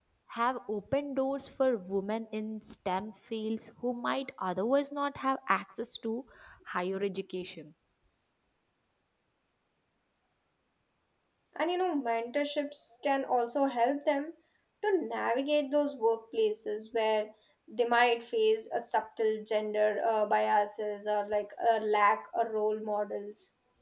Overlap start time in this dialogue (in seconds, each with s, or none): none